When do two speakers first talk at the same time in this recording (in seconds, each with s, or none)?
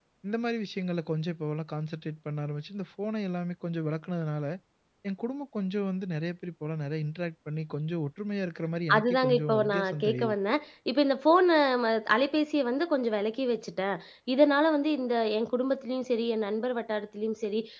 8.9 s